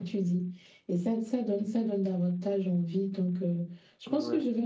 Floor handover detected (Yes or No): No